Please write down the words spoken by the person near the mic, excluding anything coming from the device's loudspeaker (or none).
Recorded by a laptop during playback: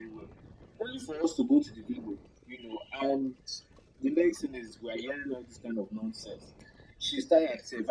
none